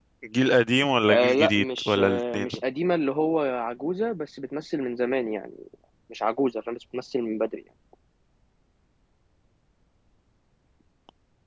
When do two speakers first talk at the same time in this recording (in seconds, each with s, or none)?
1.1 s